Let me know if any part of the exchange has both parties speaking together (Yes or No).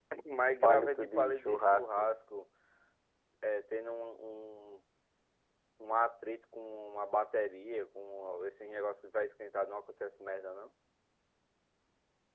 Yes